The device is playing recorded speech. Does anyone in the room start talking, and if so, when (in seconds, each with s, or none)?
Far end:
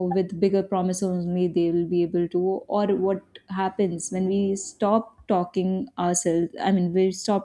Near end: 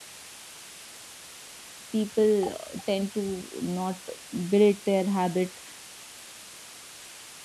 1.9 s